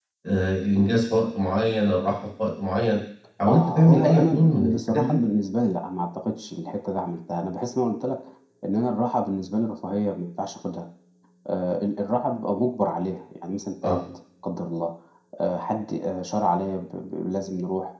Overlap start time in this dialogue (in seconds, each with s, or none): 3.5 s